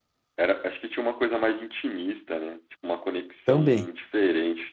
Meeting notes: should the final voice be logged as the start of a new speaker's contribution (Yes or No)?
No